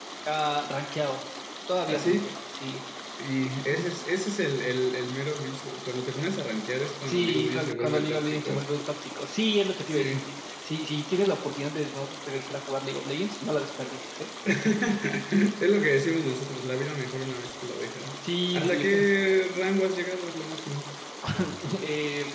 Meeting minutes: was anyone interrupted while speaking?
Yes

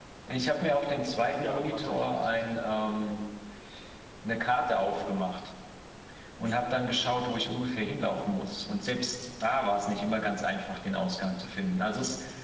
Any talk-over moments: Yes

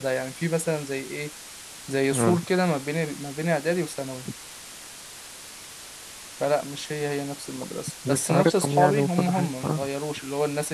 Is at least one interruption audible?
Yes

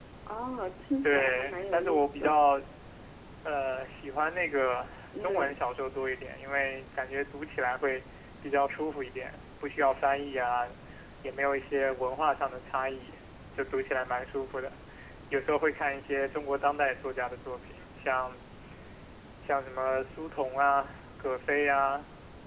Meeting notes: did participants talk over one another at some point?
Yes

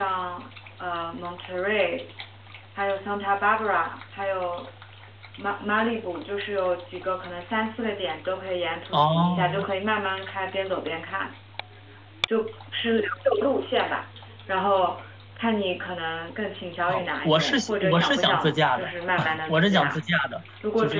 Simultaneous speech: Yes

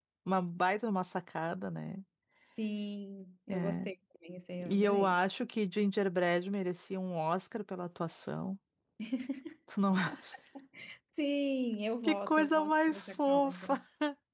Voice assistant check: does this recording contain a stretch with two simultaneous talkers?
Yes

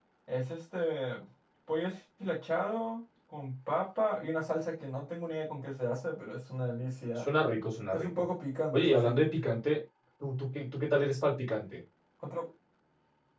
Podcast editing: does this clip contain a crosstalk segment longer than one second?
No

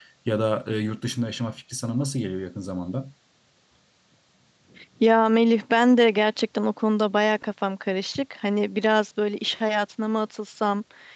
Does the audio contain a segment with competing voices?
No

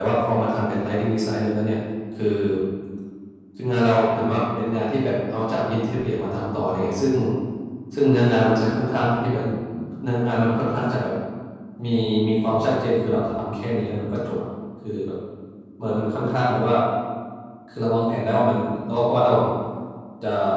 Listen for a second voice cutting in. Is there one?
No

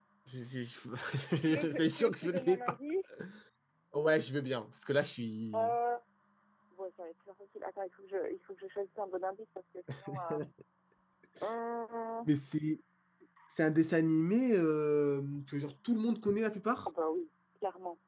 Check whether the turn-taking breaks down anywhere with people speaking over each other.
Yes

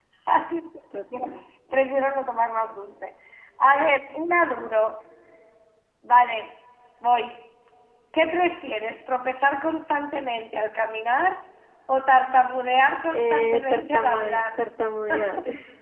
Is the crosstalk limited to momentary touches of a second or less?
No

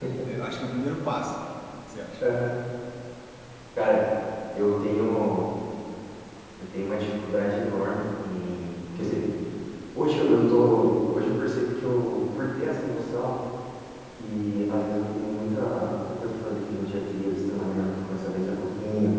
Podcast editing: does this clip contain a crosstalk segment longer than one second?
No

